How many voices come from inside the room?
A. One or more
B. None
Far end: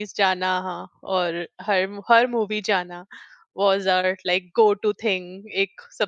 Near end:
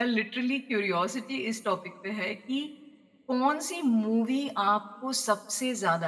A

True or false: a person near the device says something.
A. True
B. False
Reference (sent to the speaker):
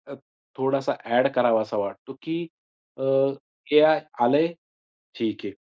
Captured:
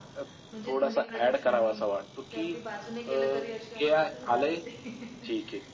A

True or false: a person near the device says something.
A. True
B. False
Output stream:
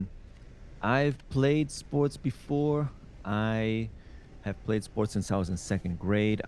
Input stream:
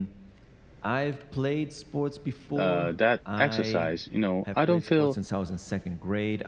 A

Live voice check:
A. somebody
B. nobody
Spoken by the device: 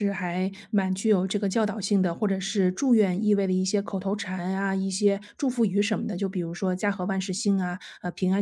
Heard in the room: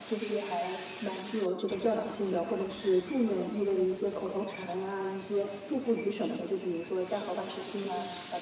B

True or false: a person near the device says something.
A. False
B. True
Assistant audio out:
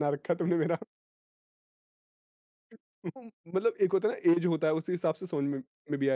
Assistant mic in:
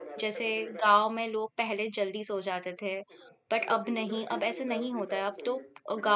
B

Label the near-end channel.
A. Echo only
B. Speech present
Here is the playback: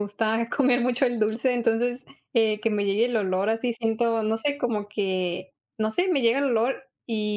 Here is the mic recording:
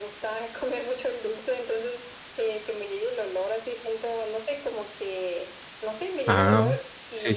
B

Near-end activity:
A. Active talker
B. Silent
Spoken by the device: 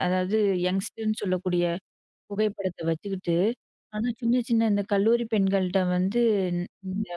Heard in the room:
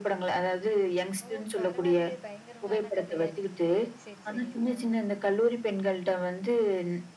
A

